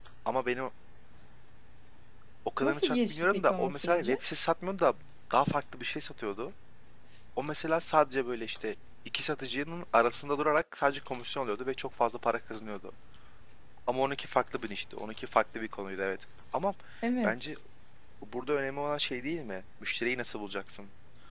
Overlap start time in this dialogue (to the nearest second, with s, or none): 3 s